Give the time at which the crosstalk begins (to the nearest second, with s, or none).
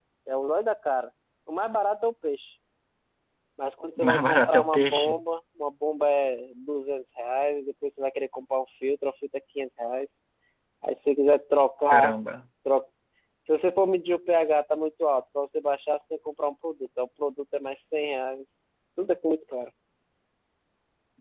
4 s